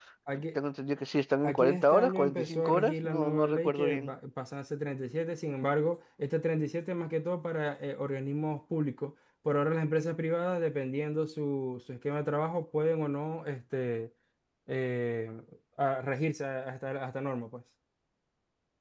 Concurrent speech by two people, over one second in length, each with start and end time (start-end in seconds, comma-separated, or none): 1.5-4.1